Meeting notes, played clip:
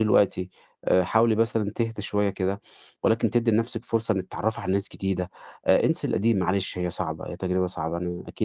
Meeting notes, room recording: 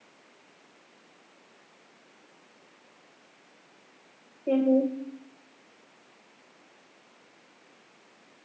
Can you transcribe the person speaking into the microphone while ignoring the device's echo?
اهم،

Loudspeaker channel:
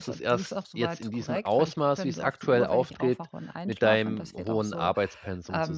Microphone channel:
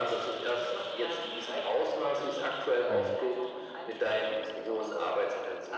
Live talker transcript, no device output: Mhm.

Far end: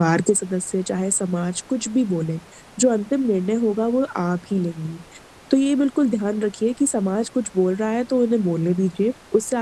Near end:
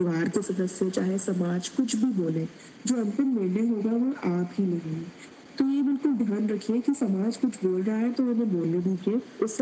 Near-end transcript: none

